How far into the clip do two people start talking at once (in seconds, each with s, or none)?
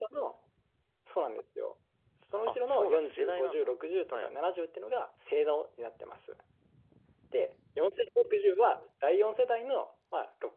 2.5 s